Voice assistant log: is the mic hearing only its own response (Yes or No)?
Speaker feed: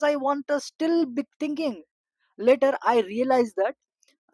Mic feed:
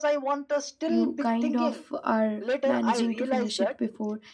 No